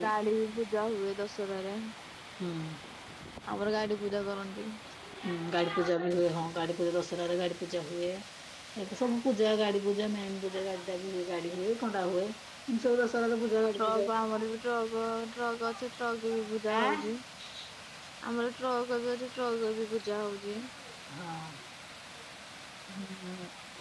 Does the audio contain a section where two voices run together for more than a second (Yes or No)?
No